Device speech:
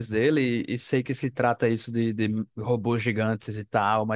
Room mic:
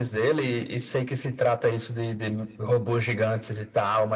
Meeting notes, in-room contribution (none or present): none